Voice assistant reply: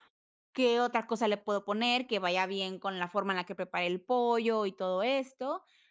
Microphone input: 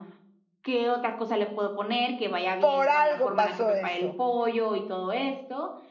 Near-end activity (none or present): present